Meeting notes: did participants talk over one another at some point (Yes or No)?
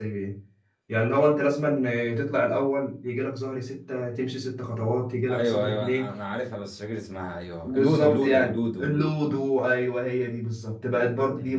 Yes